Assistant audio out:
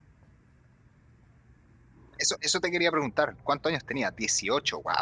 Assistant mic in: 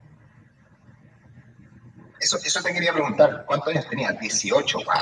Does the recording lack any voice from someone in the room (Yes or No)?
Yes